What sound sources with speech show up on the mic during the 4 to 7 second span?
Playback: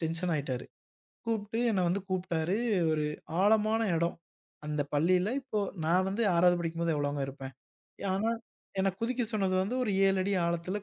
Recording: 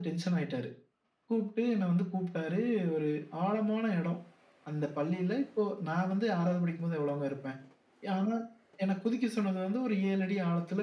echo only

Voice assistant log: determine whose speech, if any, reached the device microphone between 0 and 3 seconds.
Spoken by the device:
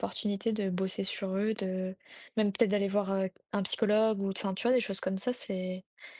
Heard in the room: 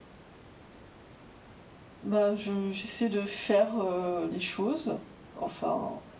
user only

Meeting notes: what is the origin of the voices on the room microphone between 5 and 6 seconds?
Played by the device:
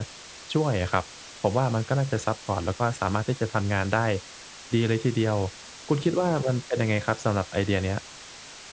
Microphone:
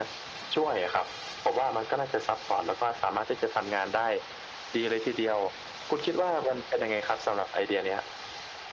echo only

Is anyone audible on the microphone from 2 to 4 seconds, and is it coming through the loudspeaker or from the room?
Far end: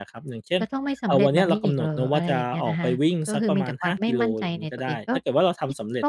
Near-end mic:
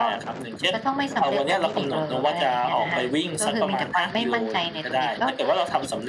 echo only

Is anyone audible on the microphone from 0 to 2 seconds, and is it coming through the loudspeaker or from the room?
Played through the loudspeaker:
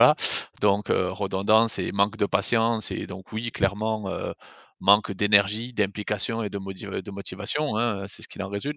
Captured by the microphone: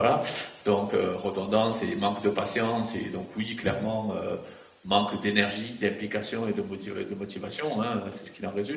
echo only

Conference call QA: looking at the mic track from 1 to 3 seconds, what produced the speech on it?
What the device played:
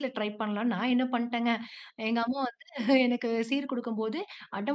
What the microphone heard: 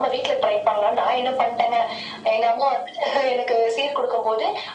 echo only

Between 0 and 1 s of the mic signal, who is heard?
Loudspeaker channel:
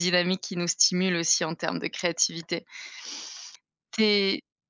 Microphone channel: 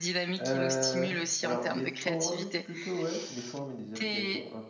both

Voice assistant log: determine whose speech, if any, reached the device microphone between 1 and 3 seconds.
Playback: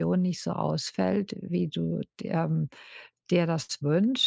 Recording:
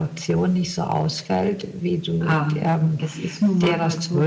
both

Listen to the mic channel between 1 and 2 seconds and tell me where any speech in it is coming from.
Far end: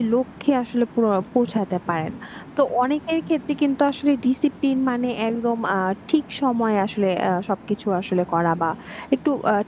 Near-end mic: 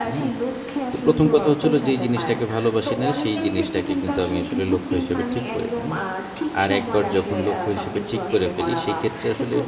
both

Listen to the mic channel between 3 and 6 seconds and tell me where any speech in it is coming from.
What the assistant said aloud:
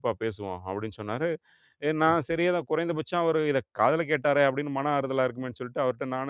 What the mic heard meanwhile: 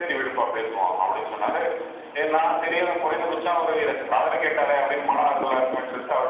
echo only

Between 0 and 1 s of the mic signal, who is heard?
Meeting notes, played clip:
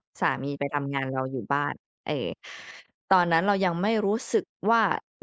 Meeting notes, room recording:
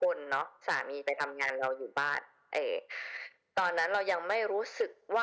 echo only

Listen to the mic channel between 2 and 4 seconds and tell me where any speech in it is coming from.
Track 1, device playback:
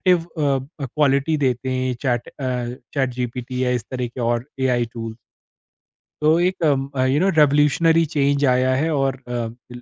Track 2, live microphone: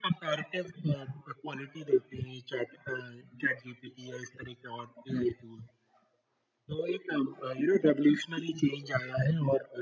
echo only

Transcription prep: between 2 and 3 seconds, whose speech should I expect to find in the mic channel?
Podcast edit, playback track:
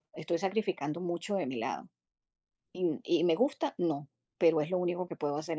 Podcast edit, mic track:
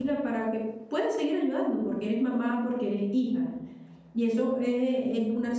user only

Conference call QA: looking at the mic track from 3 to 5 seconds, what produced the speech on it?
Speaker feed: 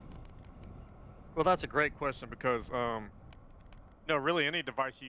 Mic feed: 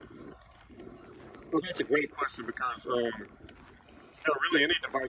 echo only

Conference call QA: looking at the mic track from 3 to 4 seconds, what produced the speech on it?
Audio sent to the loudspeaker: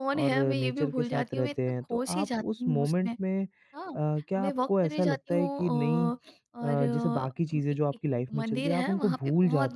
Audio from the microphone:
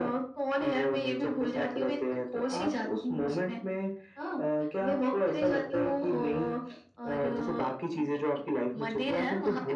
echo only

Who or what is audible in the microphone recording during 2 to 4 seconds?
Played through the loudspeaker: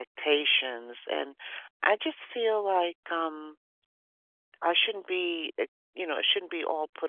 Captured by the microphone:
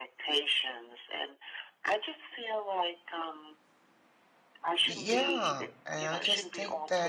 echo only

